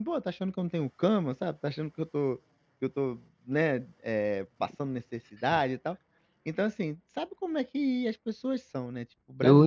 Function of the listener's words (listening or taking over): taking over